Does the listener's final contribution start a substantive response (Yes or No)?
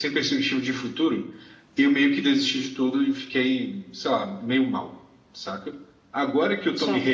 No